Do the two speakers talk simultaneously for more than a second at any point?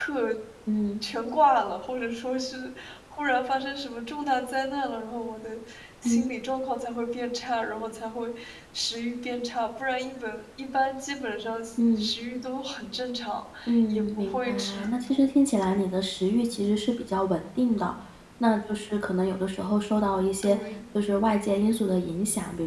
Yes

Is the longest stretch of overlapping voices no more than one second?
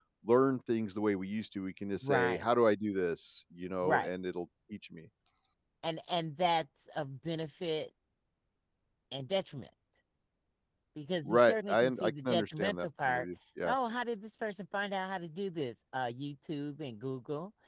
No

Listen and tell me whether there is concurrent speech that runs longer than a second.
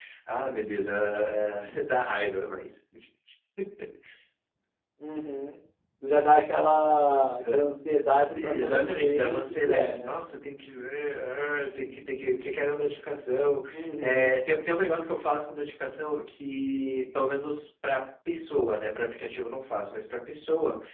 Yes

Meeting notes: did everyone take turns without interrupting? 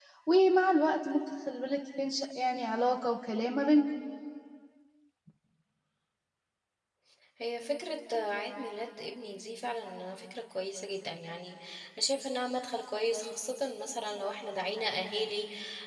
Yes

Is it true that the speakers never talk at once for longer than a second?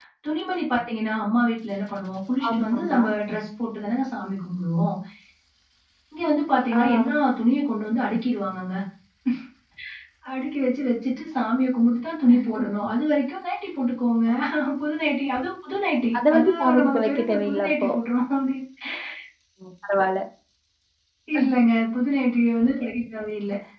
No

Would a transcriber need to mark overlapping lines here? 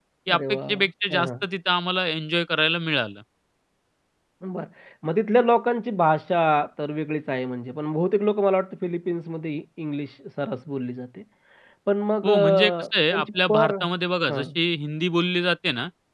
Yes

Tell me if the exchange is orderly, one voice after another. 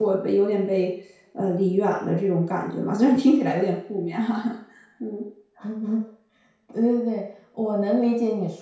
Yes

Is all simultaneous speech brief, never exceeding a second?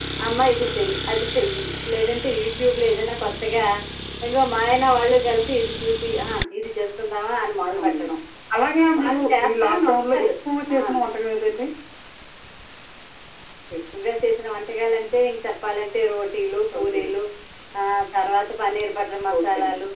No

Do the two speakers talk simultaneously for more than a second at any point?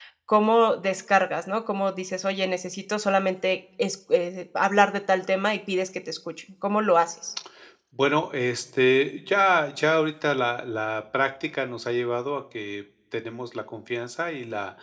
No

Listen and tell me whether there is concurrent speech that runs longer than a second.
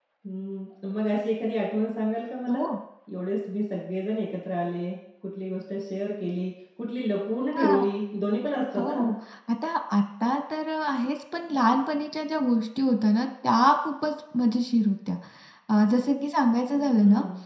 No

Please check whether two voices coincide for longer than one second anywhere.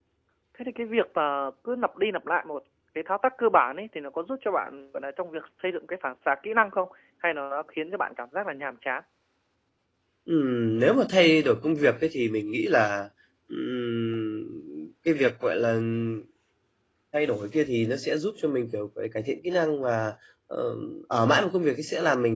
No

